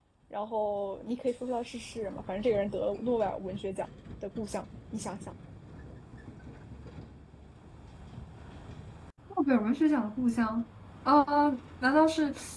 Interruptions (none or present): none